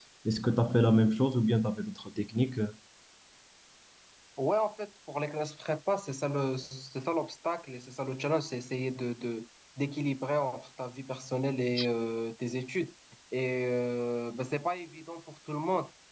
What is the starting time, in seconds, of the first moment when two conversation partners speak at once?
none

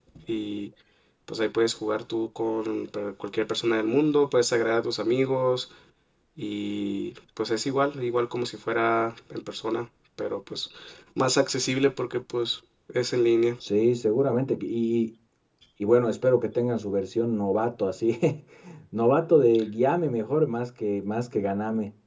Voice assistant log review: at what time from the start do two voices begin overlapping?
none

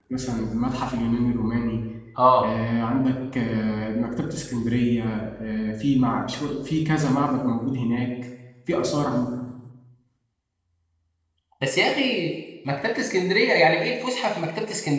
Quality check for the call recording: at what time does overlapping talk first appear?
none

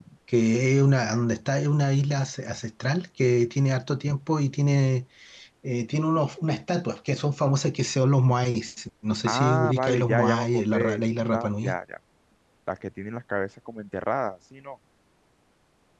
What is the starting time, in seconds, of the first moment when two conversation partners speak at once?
9.2 s

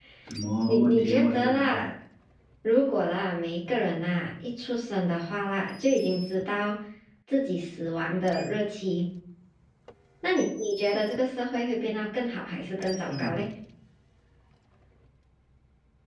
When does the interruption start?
0.7 s

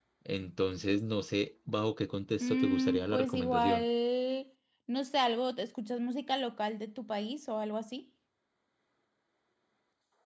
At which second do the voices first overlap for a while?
2.4 s

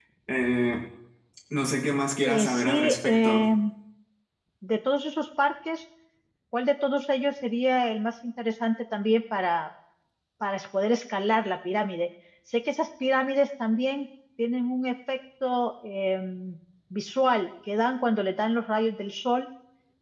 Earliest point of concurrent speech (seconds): 2.2 s

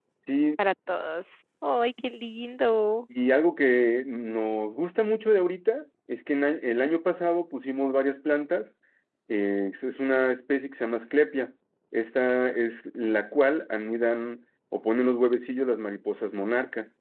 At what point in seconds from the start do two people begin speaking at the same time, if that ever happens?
none

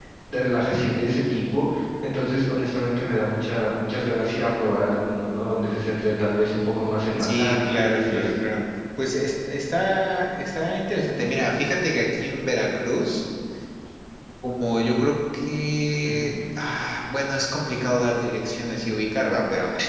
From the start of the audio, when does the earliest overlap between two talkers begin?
7.2 s

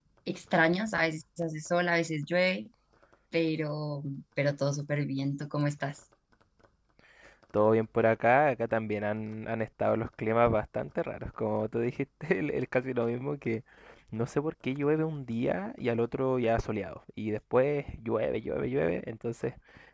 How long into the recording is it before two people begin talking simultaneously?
none

